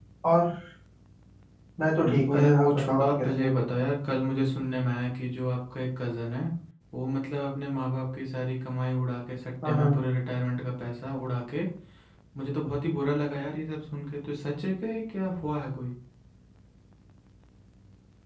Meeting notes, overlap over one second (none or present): present